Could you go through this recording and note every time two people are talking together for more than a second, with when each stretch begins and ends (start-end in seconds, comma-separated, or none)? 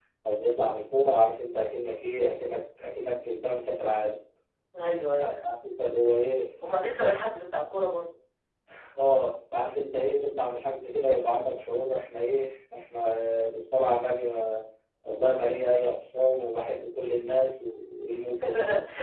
none